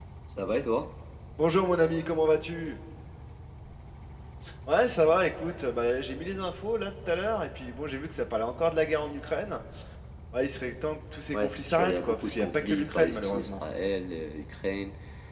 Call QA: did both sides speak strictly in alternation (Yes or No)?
No